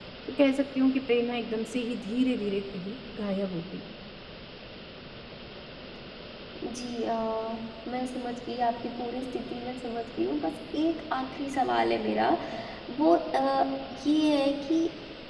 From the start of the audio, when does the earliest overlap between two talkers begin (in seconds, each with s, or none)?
none